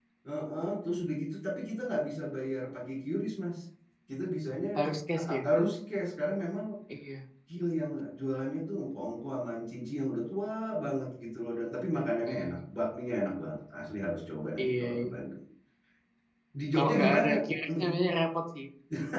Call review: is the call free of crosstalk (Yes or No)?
No